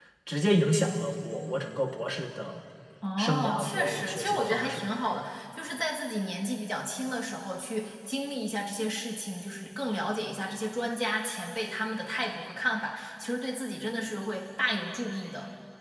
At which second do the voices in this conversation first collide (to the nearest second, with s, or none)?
3 s